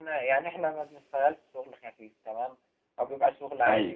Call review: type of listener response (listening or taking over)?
listening